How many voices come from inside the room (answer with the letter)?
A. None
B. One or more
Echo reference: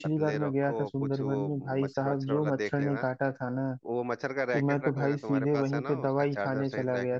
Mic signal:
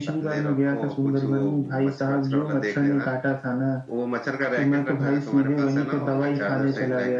B